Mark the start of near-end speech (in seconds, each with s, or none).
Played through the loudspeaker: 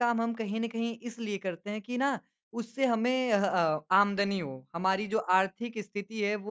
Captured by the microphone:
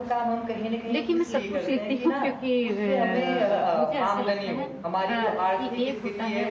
0.8 s